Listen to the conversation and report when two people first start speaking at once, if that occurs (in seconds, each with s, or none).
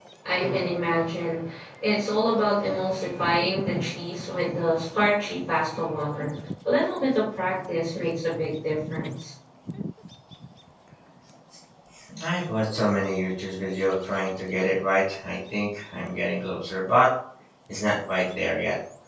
none